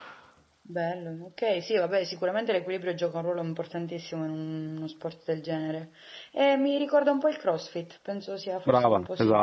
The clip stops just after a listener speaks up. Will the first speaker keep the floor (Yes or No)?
No